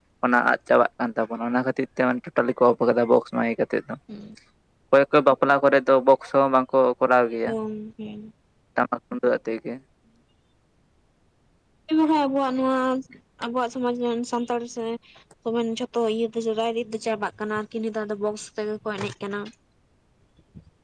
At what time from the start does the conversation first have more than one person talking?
none

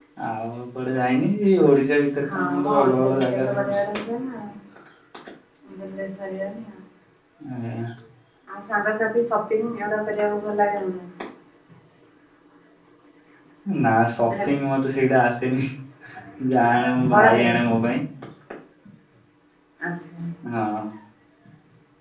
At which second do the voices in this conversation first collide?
2.3 s

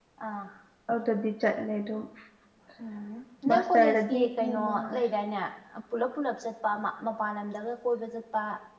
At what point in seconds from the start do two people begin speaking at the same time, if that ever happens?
3.5 s

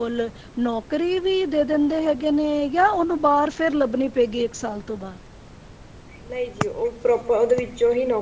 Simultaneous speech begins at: none

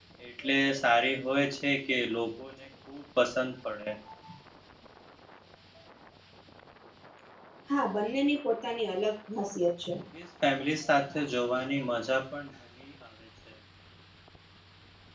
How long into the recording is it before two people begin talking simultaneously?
none

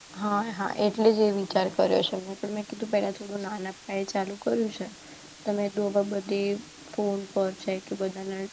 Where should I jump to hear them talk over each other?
none

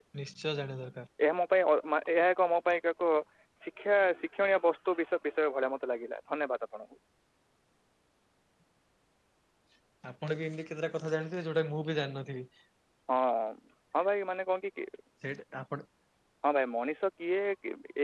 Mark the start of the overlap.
none

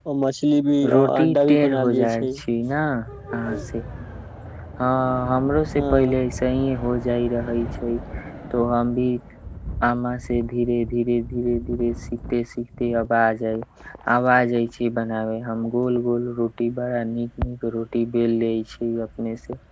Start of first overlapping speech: 0.8 s

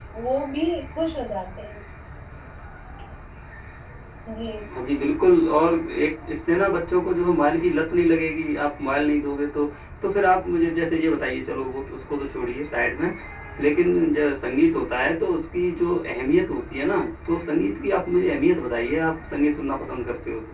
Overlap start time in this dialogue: none

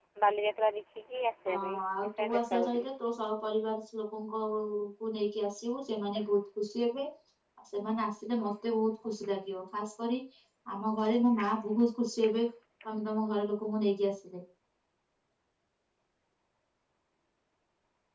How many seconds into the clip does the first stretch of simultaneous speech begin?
1.5 s

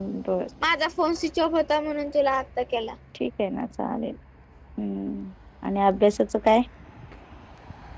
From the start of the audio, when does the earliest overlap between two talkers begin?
none

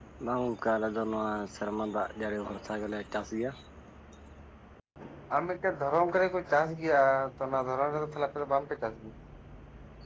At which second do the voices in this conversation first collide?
none

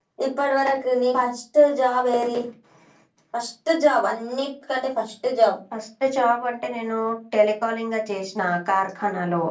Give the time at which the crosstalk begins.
none

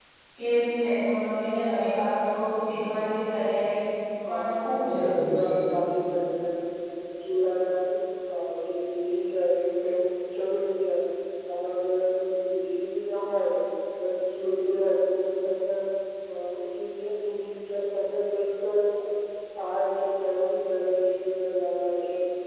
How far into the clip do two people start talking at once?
4.3 s

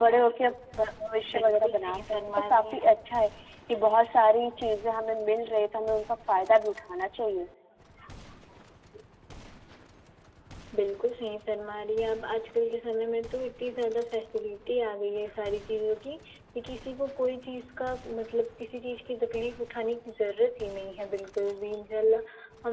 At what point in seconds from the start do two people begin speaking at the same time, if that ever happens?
1.4 s

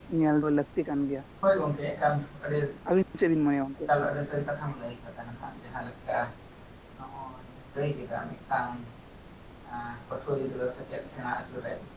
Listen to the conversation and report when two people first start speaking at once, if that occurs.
none

